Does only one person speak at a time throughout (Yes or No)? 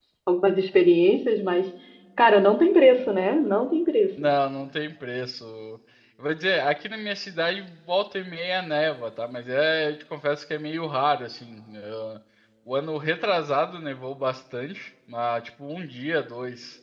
Yes